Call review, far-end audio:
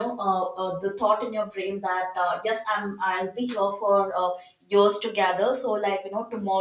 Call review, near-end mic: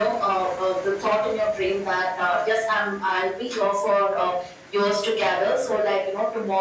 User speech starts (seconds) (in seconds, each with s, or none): none